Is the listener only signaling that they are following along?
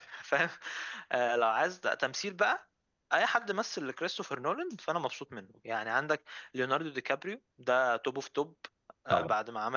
Yes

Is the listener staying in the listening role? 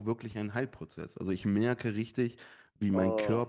Yes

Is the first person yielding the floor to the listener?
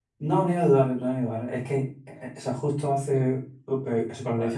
No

